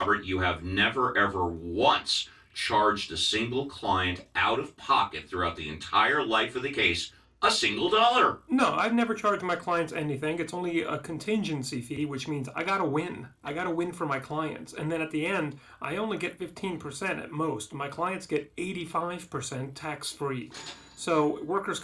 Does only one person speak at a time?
Yes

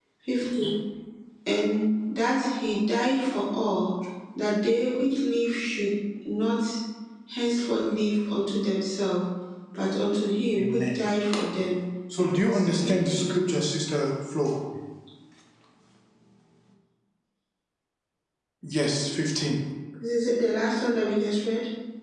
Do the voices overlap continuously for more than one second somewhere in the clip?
Yes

